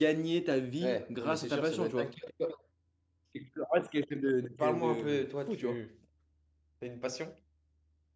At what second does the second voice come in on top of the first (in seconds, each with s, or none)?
0.8 s